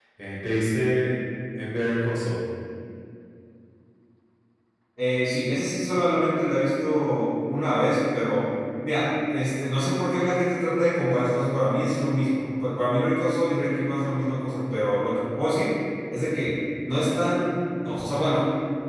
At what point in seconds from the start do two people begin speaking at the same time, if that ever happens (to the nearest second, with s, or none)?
none